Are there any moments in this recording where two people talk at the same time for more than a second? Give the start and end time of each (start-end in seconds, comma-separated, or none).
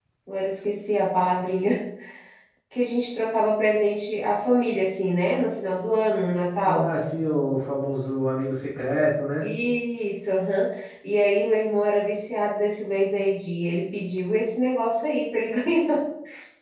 none